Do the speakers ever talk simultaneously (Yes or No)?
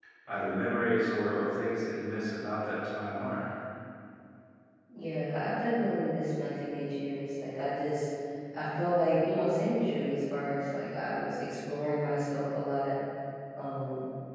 No